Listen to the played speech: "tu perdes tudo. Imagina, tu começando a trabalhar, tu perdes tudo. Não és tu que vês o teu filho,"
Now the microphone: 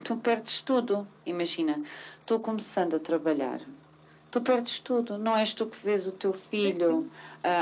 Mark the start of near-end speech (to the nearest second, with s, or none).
7 s